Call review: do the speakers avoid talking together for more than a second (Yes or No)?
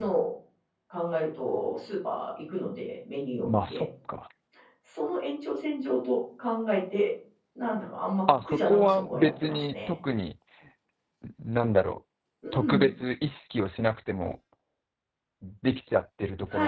No